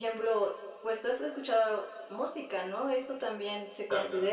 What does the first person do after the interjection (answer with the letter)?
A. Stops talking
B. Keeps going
B